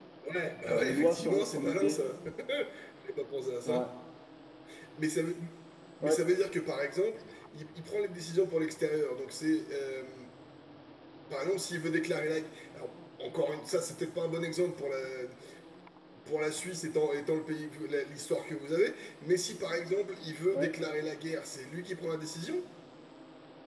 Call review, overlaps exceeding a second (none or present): present